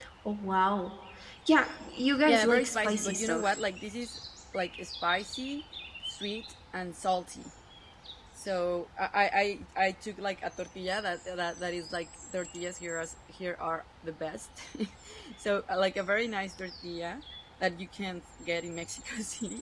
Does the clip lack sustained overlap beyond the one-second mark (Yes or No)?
No